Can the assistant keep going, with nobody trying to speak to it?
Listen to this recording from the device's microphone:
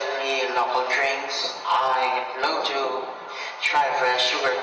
Yes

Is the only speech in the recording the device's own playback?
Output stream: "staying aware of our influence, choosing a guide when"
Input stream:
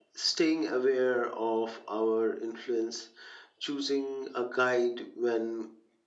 Yes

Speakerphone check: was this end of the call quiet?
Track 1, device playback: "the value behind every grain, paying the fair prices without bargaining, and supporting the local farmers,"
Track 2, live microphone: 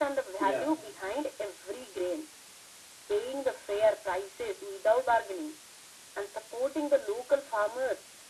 No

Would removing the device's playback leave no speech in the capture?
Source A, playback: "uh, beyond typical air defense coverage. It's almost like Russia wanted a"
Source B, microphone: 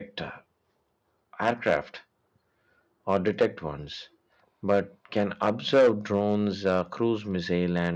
No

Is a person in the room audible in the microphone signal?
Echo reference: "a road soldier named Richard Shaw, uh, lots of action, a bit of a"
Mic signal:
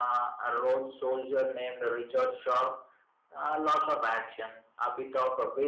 No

